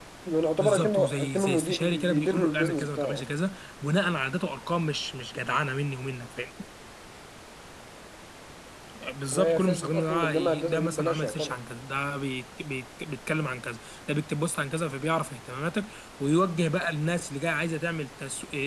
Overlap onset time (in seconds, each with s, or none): 0.6 s